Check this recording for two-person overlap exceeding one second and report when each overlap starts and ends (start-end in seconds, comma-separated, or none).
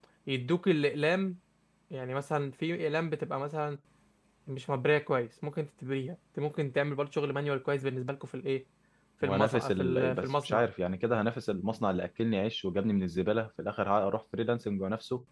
9.2-10.6